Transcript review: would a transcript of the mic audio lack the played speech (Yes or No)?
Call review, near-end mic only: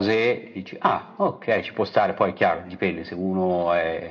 No